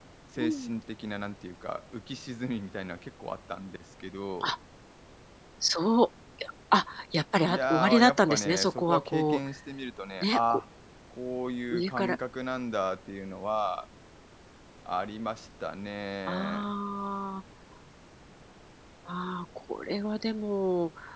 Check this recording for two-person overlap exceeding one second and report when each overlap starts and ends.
7.5-9.4

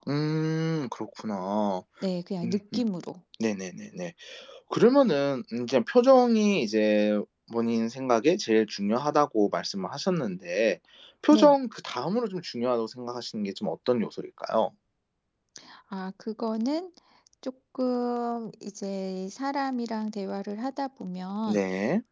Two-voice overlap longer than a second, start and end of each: none

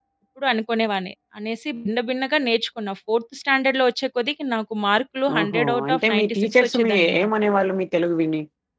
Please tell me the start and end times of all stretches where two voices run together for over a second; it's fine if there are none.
5.4-7.3

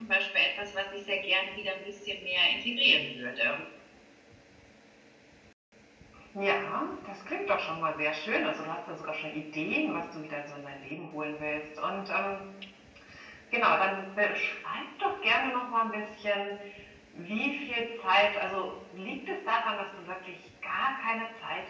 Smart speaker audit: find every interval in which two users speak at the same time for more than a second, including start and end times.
none

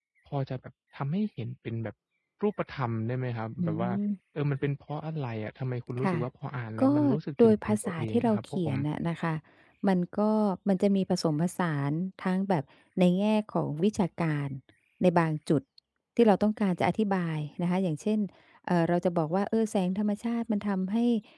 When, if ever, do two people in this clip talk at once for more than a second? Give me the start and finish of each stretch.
7.4-8.8

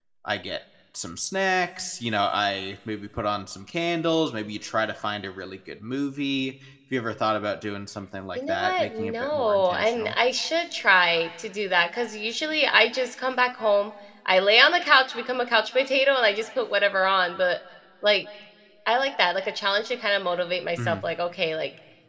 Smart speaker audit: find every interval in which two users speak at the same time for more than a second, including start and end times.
8.3-10.2

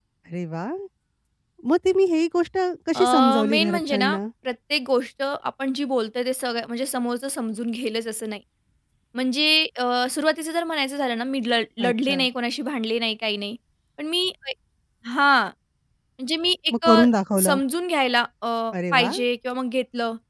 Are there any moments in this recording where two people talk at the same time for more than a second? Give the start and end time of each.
3.0-4.2

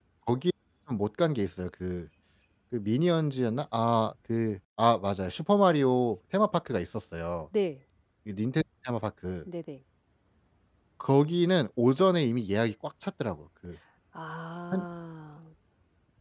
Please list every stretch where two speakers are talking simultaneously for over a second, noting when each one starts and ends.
none

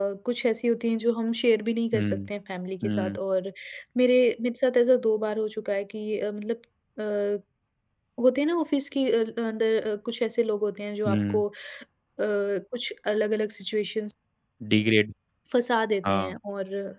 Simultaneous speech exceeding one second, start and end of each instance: none

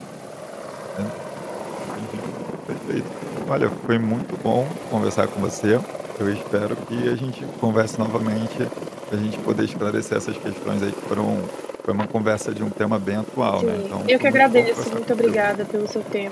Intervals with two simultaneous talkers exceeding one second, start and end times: 13.6-15.4

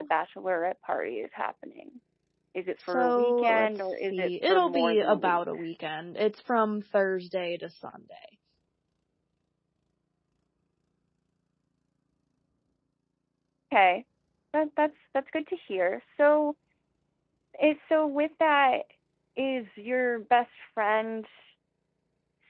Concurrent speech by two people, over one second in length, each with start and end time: 2.8-5.6

